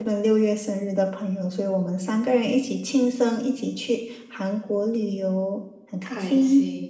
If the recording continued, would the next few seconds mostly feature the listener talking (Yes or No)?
Yes